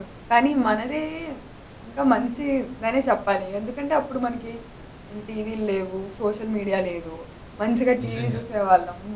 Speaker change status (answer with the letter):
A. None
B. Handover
A